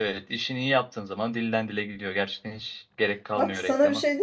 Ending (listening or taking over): taking over